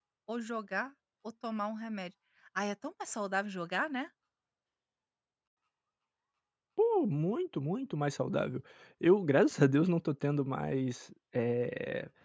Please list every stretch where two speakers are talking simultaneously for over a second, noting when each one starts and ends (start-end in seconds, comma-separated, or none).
none